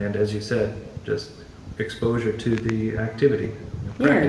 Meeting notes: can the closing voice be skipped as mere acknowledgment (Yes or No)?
No